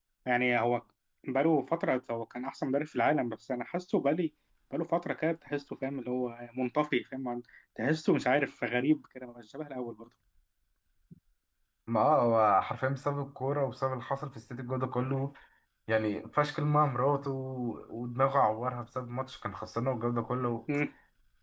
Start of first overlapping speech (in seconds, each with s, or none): none